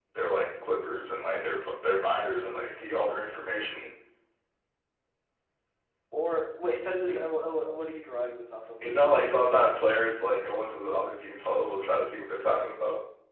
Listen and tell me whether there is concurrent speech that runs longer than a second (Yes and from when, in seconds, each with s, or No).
No